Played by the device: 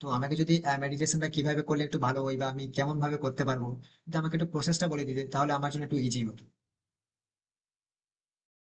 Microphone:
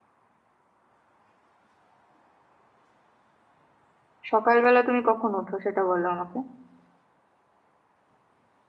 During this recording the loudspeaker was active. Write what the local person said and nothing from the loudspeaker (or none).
সকালবেলা তুমি কখন ওঠো সেটা বলো আমাকে